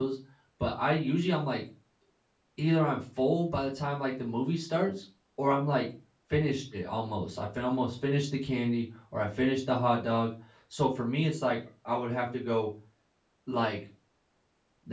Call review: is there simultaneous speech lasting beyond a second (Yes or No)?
No